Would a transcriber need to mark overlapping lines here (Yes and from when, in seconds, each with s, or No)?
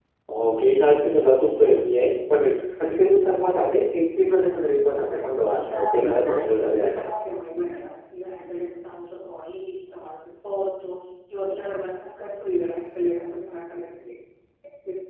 Yes, from 4.9 s